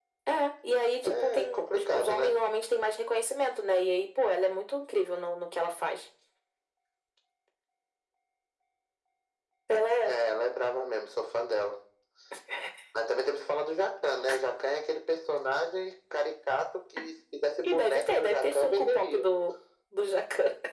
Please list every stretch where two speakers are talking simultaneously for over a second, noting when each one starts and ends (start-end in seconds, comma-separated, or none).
1.0-2.4, 17.6-19.2